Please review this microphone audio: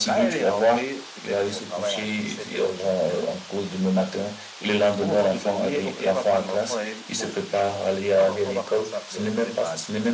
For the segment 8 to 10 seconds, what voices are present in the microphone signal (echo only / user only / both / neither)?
echo only